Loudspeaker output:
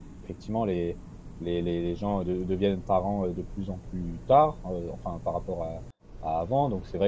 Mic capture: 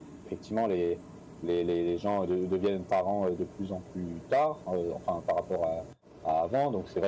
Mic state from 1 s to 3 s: echo only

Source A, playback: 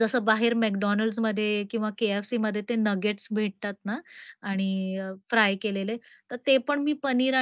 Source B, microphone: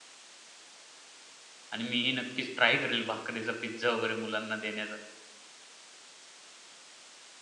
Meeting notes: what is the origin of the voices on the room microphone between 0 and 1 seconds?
neither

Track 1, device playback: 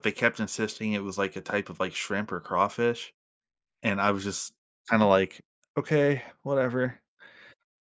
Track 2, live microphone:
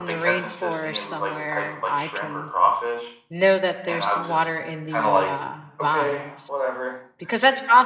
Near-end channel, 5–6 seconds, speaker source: both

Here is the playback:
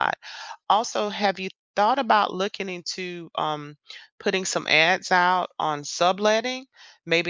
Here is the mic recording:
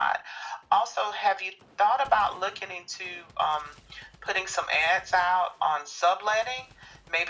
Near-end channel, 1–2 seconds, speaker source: echo only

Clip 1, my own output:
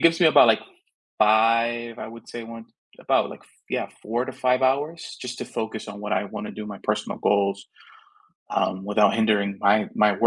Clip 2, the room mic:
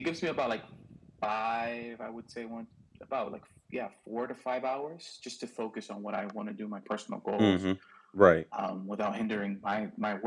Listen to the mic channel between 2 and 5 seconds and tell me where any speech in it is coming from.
echo only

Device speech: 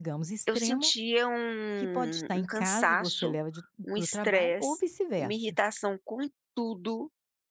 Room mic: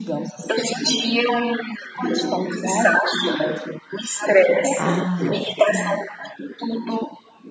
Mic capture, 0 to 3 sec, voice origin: echo only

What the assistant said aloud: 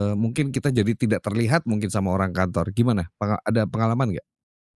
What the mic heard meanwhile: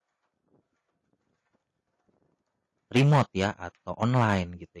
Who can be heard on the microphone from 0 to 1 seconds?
neither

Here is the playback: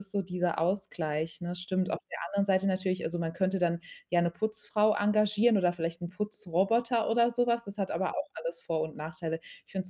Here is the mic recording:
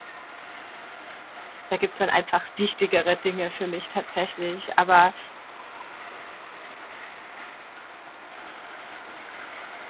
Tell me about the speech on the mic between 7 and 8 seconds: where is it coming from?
neither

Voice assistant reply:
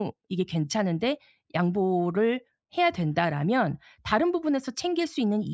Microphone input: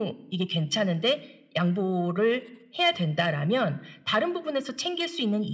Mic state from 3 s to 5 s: echo only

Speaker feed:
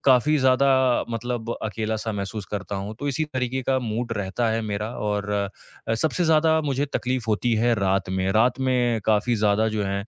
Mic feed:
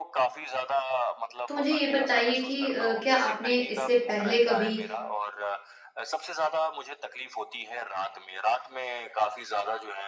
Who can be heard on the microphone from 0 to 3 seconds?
both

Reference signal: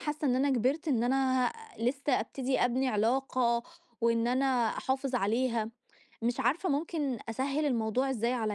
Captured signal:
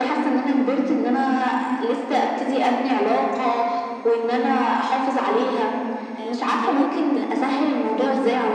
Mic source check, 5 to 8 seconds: both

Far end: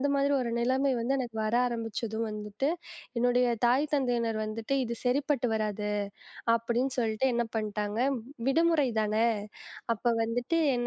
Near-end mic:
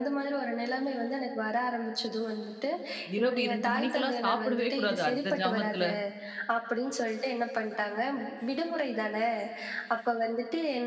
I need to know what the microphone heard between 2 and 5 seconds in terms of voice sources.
both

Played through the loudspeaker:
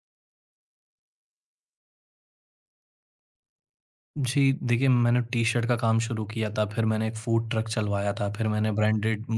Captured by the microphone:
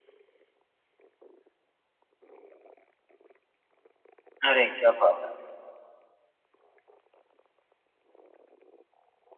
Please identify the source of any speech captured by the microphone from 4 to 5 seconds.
user only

